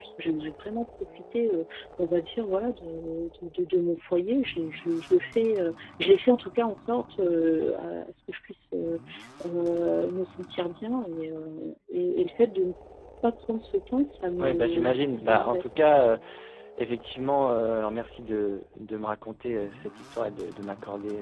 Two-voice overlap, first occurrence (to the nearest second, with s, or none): 14 s